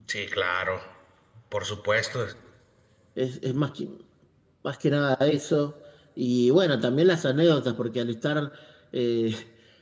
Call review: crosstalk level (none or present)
none